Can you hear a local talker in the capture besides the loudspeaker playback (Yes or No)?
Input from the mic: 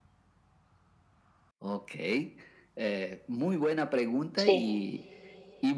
Yes